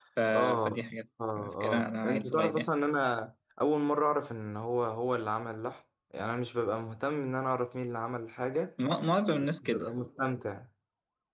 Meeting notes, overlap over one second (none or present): present